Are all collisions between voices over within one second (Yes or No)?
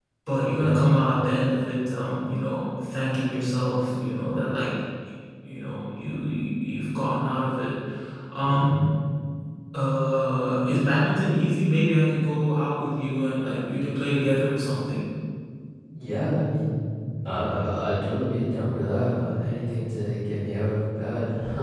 Yes